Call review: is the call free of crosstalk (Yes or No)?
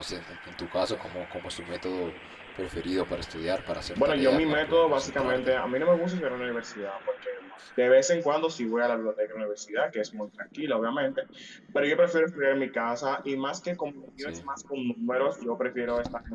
No